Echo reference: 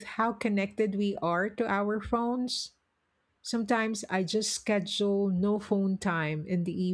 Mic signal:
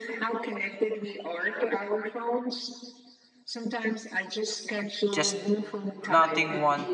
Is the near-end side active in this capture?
Yes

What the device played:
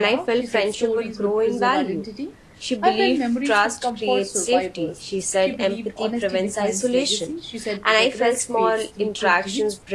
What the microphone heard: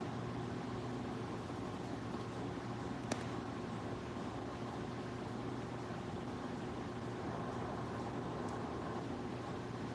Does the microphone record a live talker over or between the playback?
No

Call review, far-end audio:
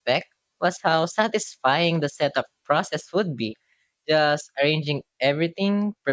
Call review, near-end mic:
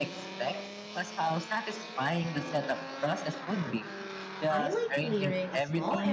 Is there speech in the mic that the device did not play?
Yes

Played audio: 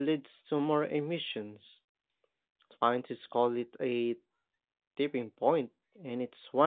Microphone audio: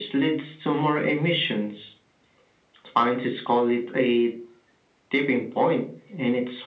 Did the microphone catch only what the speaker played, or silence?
Yes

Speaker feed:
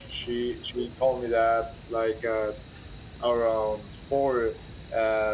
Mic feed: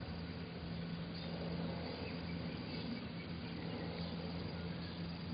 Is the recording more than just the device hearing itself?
No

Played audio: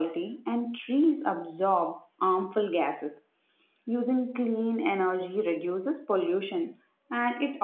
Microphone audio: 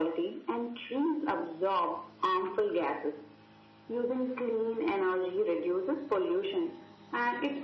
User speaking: No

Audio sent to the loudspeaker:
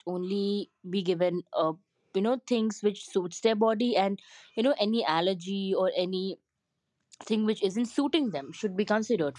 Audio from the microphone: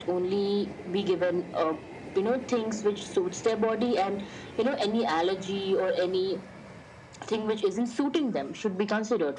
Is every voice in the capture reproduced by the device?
Yes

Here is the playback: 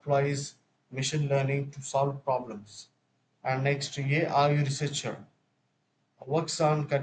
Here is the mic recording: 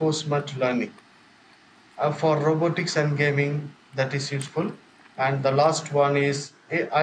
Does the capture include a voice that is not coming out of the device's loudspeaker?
Yes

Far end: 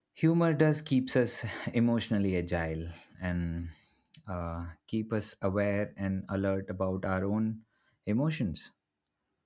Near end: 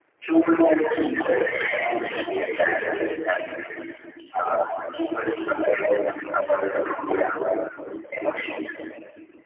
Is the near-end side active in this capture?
No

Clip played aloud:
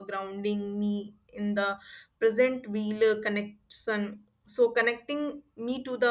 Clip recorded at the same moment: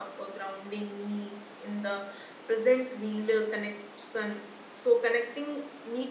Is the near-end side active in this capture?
No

